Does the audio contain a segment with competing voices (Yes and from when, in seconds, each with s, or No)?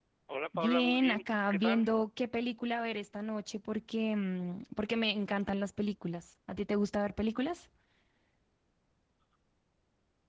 Yes, from 0.6 s